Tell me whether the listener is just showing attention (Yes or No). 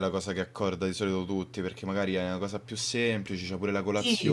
No